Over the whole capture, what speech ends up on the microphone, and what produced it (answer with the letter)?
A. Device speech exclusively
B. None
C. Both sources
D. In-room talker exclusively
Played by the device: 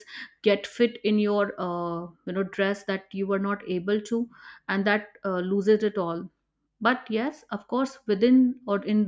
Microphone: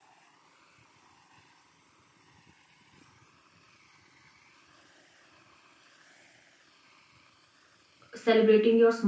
D